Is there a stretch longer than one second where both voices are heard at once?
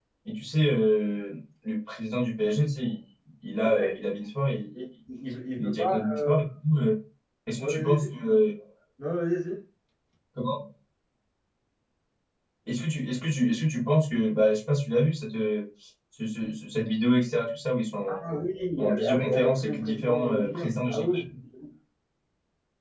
Yes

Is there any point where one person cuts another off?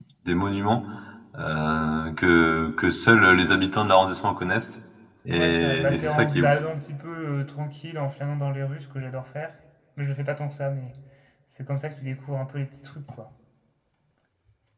Yes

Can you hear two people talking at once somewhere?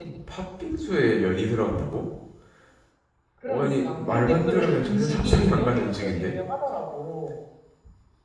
Yes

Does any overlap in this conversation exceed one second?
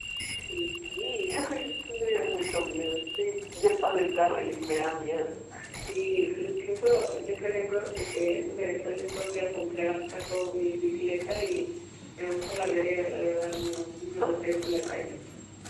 No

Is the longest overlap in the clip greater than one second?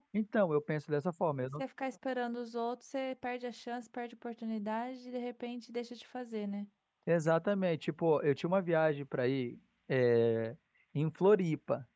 No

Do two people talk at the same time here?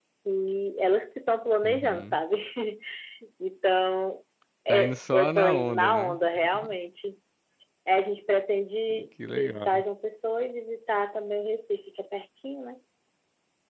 Yes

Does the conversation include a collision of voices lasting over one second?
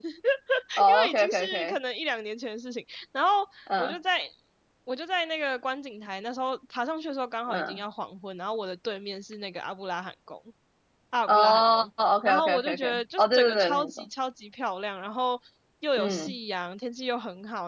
Yes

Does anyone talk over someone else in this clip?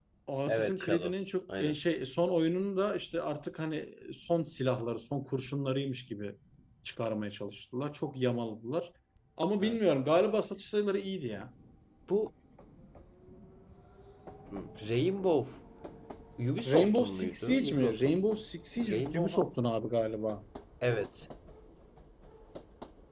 Yes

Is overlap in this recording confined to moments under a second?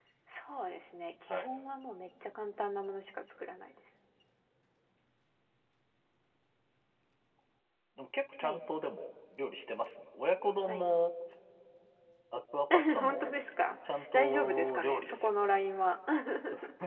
No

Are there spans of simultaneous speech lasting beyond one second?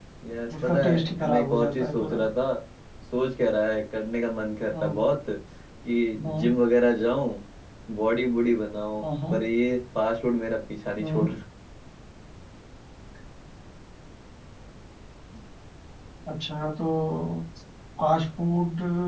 Yes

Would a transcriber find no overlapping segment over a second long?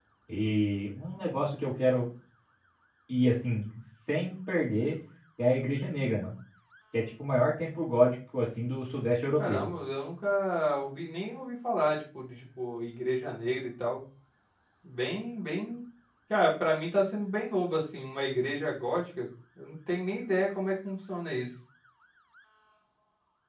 Yes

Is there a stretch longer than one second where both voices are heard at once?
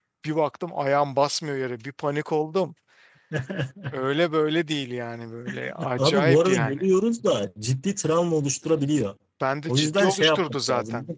Yes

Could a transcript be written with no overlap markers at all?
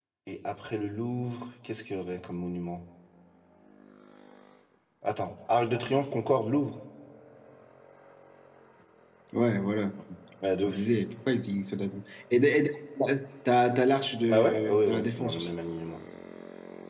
No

